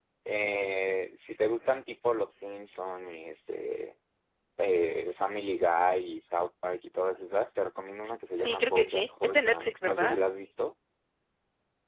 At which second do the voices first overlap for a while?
8 s

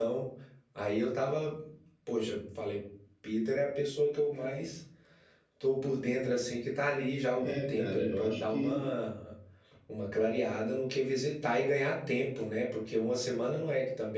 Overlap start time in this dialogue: 7 s

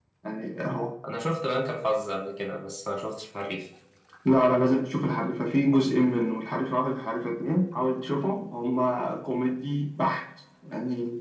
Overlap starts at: none

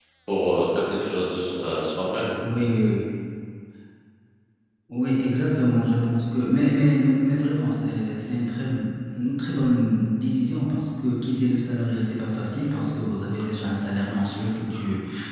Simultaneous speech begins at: none

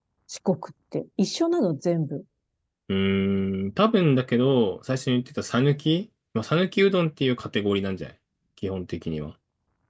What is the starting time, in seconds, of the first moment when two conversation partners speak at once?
none

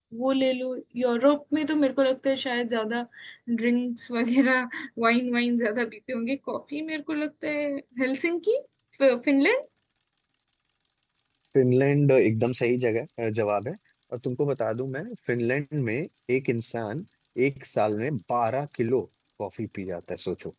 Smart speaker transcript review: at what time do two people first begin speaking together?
none

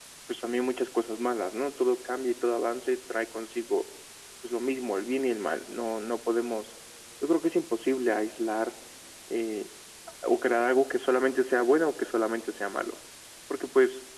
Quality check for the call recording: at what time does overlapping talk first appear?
none

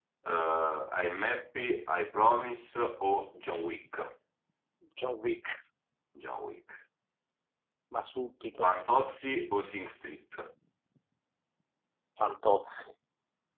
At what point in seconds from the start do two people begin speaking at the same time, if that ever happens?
none

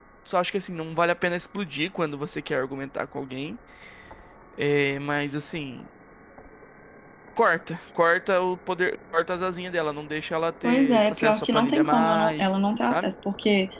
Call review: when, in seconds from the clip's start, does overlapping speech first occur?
11 s

